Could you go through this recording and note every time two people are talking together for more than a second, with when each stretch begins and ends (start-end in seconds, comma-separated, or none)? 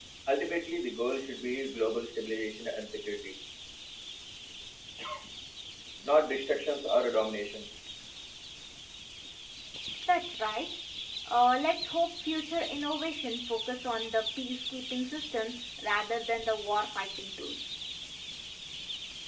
none